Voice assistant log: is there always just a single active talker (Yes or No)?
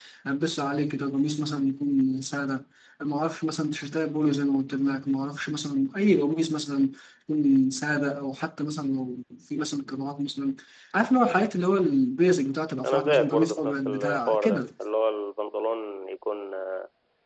No